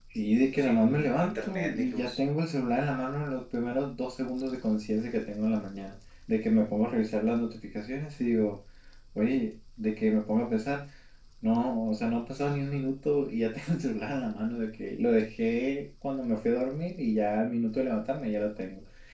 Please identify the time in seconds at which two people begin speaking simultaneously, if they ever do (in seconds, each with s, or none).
0.6 s